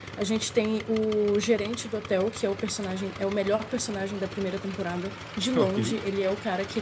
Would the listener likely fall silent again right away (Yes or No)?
Yes